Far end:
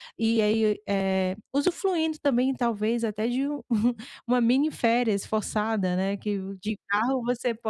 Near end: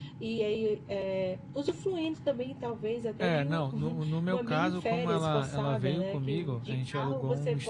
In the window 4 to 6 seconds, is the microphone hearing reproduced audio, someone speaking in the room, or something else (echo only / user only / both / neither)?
both